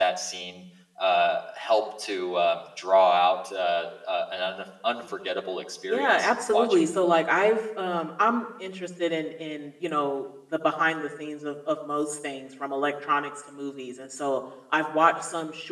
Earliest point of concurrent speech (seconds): 5.9 s

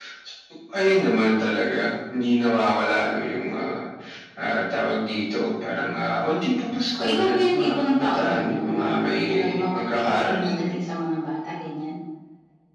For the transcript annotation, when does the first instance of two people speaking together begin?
7.0 s

